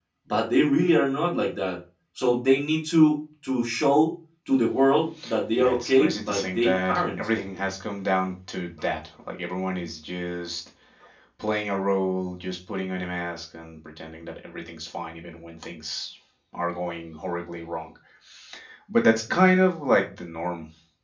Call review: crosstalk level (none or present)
present